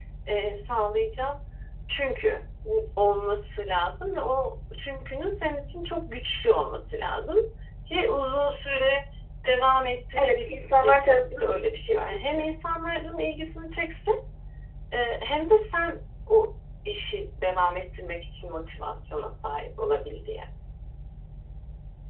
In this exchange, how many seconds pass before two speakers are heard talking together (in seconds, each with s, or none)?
10.2 s